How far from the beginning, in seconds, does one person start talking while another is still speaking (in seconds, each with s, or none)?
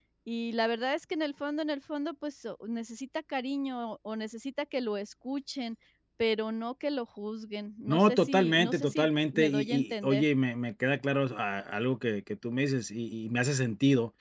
7.9 s